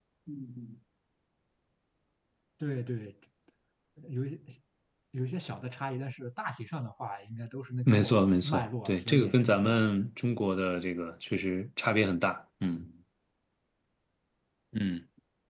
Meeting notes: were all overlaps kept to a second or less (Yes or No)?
No